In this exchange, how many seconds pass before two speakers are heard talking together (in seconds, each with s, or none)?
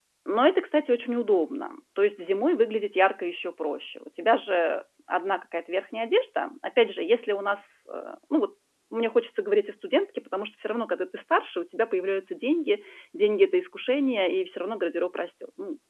none